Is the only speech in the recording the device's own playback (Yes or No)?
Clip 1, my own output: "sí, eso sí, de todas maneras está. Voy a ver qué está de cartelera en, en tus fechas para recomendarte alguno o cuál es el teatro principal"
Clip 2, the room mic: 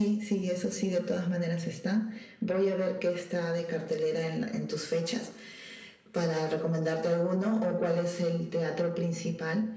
Yes